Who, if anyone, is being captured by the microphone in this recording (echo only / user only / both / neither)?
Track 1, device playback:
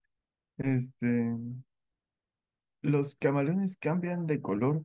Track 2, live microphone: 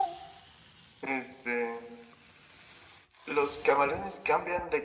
echo only